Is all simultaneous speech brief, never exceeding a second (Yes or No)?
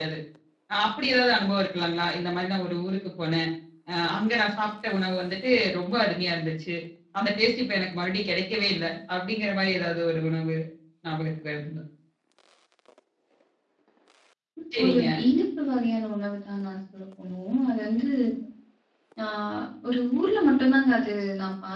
Yes